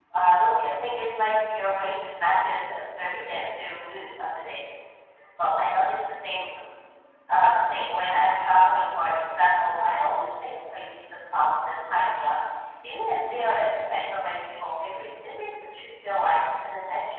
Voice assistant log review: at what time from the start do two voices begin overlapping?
none

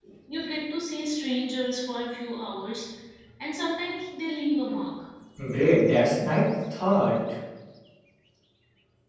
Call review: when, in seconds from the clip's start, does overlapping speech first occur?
none

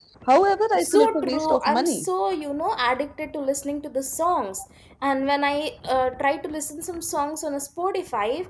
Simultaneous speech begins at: 0.8 s

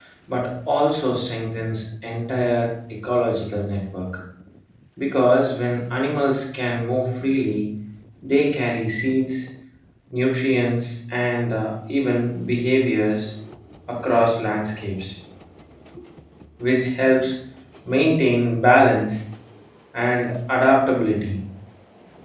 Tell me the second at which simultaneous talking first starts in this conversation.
none

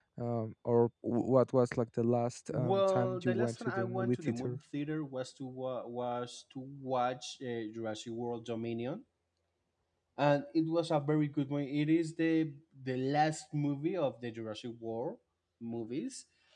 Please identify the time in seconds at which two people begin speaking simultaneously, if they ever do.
2.5 s

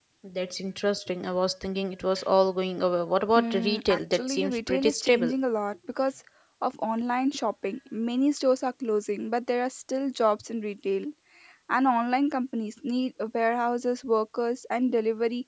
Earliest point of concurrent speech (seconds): 3.4 s

